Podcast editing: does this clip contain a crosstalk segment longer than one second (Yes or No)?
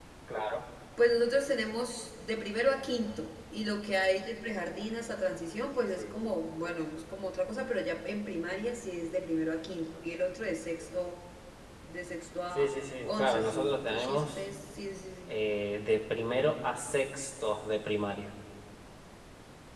Yes